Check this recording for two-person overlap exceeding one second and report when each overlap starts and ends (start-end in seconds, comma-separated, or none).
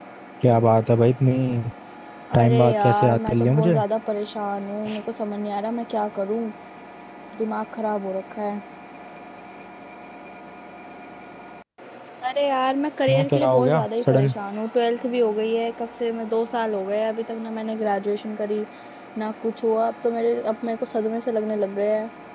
2.3-3.8, 13.1-14.3